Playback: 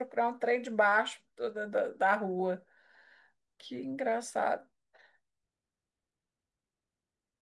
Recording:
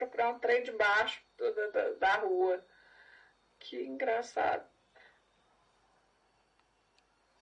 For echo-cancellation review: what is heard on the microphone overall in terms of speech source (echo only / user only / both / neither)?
echo only